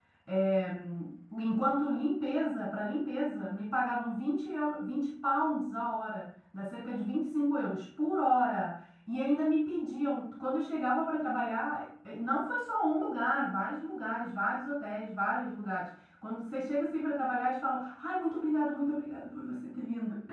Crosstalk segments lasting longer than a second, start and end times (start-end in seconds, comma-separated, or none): none